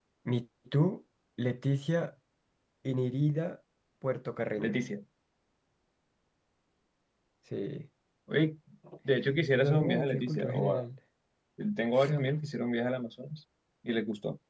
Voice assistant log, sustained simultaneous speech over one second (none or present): present